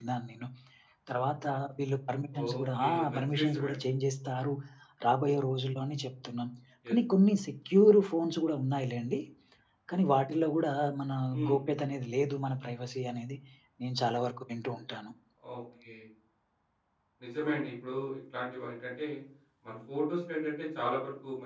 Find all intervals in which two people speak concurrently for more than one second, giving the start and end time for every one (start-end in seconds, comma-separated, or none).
2.5-3.9